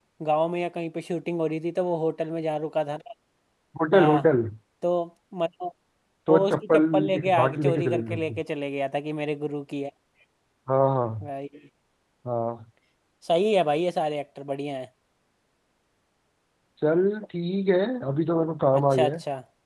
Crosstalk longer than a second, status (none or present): present